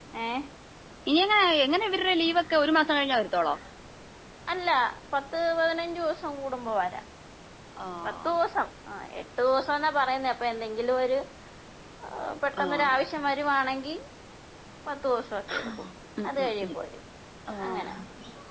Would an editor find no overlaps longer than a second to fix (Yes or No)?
Yes